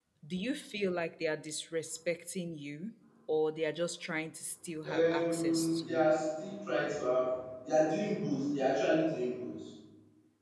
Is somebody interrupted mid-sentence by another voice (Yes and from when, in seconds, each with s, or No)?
Yes, from 4.8 s